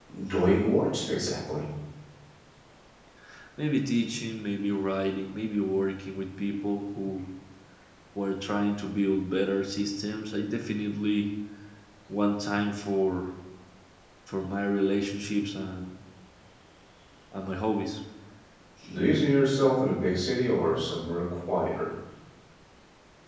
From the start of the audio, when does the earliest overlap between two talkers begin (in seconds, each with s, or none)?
none